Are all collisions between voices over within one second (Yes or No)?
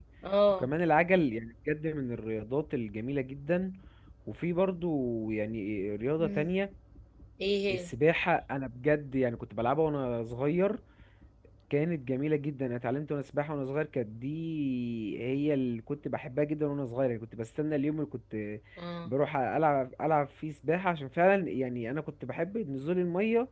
Yes